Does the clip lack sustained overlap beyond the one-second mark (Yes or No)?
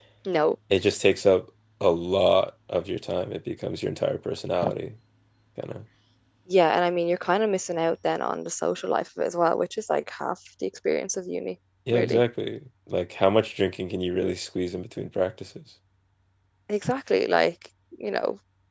Yes